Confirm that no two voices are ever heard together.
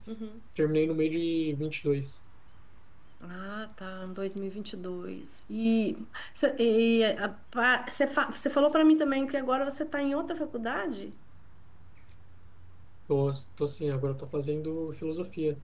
Yes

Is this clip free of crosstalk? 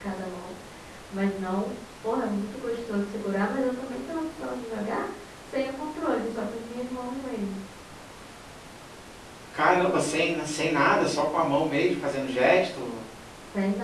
Yes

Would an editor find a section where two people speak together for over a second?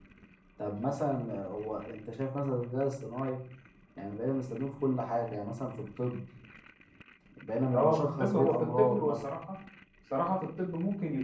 Yes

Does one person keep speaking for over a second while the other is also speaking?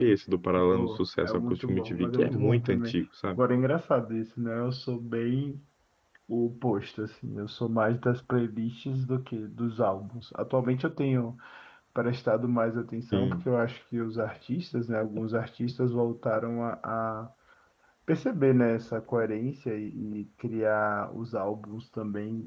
Yes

